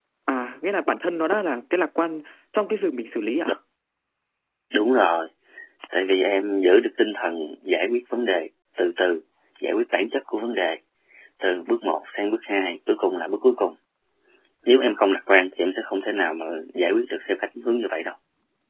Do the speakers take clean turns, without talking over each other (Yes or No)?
Yes